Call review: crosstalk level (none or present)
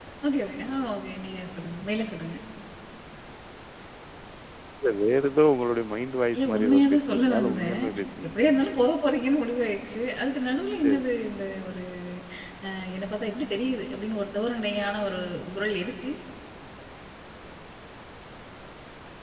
present